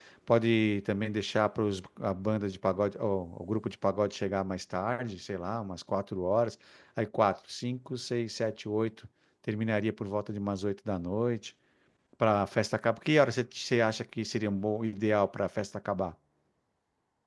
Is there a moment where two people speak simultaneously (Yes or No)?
No